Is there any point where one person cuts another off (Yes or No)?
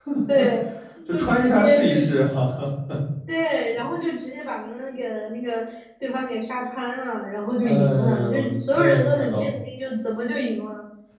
Yes